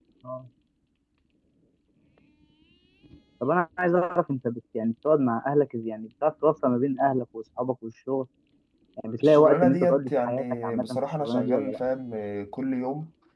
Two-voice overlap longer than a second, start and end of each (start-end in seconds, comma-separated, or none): 9.2-11.8